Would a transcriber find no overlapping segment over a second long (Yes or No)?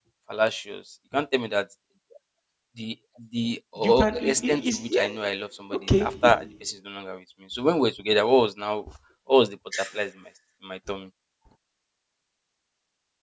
No